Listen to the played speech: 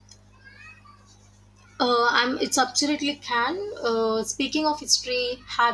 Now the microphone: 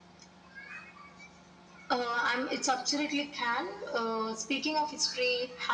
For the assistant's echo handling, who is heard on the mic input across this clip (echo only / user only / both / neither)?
echo only